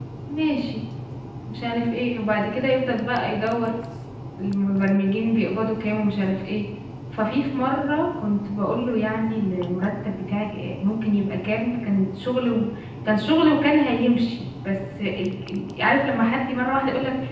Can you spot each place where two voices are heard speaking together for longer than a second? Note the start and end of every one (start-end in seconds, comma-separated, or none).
none